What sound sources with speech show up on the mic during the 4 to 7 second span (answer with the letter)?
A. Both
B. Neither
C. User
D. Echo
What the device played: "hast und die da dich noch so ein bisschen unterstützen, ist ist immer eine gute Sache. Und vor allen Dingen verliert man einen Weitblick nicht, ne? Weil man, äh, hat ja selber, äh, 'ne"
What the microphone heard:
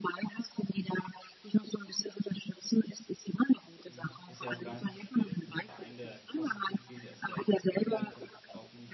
A